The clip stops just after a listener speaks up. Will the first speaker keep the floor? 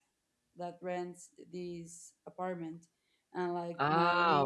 No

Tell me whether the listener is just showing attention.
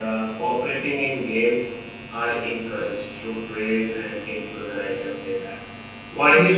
Yes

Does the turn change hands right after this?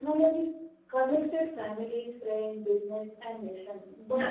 No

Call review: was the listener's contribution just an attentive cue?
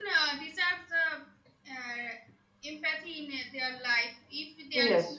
Yes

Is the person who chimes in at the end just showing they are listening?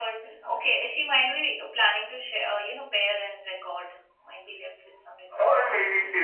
No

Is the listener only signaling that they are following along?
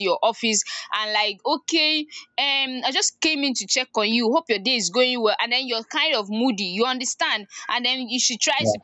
Yes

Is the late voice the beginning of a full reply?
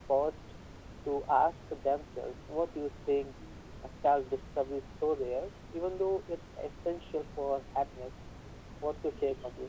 Yes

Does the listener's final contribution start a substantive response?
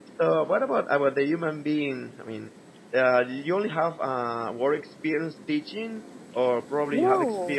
No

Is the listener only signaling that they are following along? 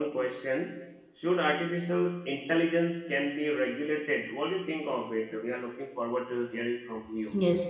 No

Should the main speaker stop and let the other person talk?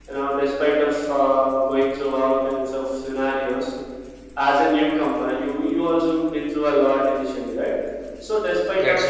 No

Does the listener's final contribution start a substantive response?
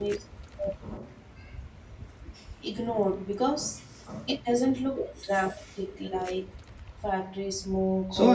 Yes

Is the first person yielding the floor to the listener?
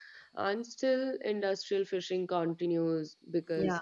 No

